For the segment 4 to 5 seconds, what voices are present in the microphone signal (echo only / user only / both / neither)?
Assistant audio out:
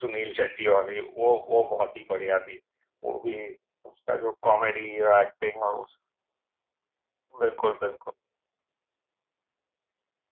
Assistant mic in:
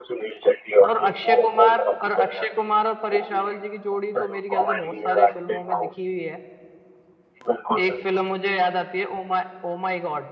both